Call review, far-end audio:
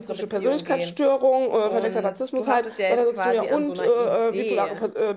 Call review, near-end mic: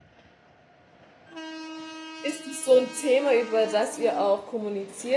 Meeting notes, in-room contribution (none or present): present